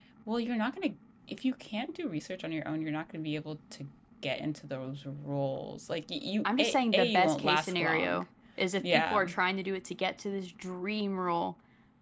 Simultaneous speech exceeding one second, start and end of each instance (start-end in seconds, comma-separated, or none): 6.5-8.2